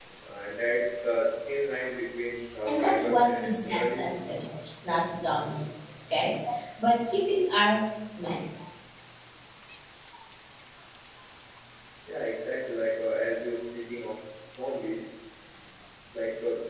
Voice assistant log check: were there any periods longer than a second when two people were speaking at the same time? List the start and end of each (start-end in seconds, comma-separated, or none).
2.7-4.0